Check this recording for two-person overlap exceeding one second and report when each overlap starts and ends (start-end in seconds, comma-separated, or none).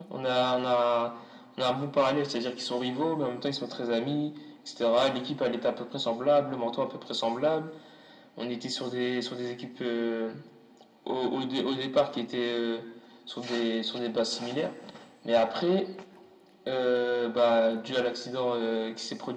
none